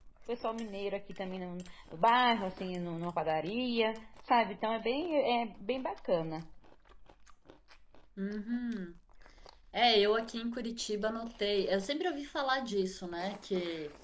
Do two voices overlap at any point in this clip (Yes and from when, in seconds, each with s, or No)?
No